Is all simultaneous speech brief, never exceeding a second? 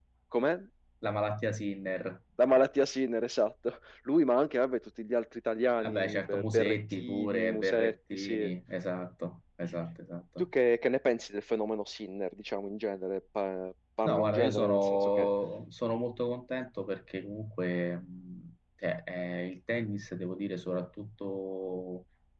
No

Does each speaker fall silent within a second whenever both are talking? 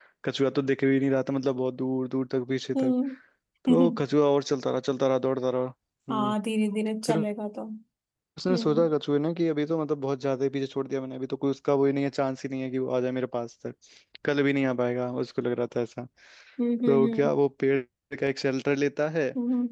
Yes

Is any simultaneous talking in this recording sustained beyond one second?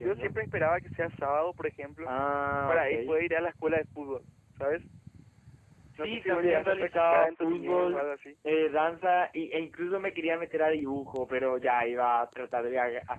Yes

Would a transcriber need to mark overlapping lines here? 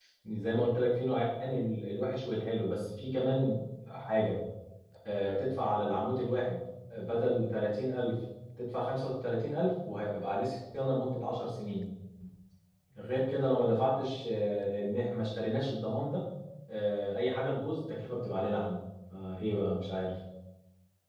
No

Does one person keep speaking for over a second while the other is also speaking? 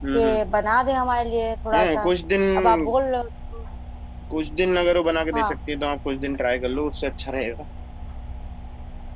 No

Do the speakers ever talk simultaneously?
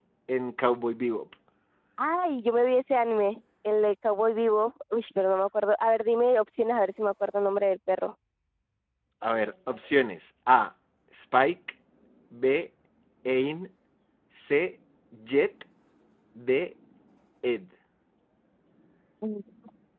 No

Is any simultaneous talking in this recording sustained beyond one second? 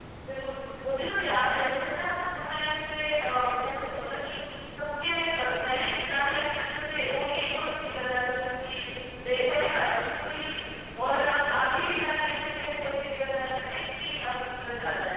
No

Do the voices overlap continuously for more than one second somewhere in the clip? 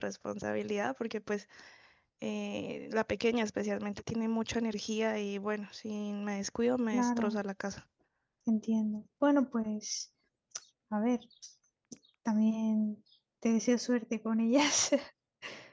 No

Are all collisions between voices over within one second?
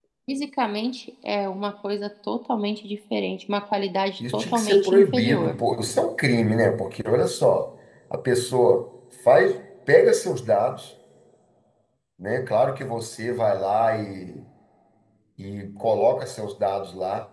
No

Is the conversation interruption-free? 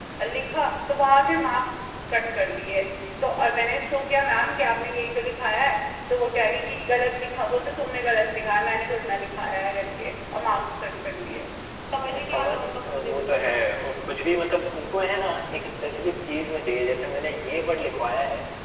No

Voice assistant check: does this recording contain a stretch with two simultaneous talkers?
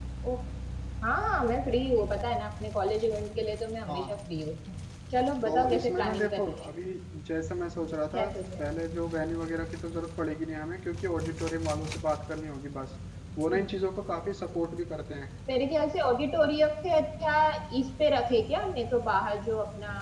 Yes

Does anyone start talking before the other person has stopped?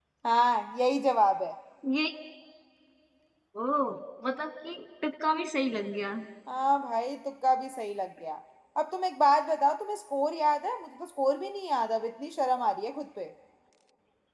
No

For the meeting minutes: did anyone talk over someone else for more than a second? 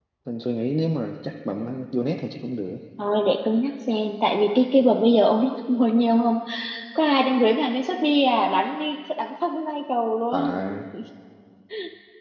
No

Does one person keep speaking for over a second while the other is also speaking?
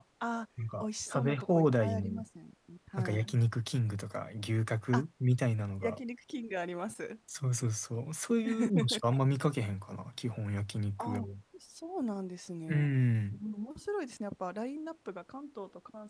Yes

